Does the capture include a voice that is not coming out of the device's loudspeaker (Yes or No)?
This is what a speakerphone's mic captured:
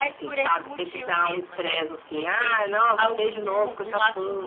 Yes